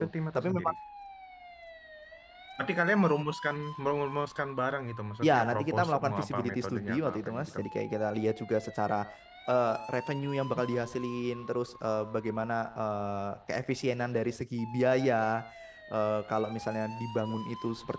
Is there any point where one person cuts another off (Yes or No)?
Yes